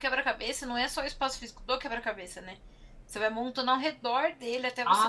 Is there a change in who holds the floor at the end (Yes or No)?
Yes